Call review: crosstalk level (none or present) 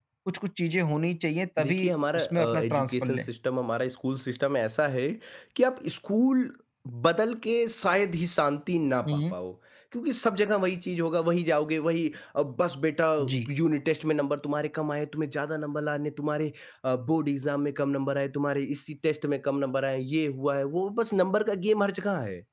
present